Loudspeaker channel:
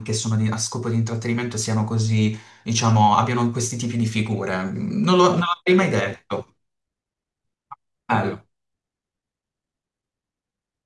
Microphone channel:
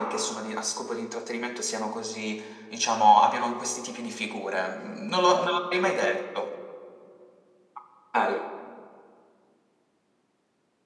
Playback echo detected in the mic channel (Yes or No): Yes